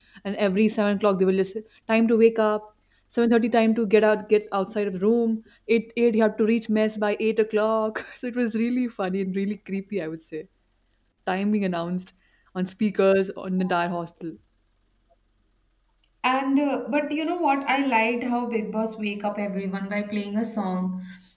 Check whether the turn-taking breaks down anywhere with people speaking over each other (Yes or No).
No